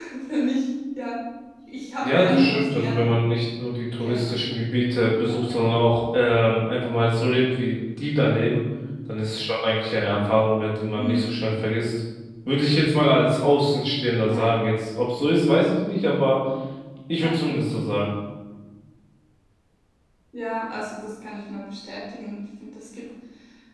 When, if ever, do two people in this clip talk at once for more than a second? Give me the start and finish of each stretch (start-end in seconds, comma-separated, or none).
2.0-3.2